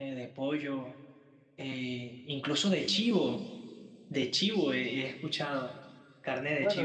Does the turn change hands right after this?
Yes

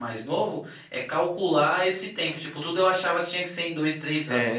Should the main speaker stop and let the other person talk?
No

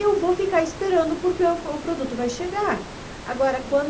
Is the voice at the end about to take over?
No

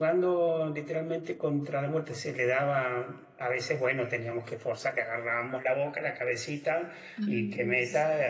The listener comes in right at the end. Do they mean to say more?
No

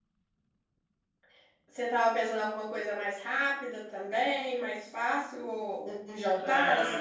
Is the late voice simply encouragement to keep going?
No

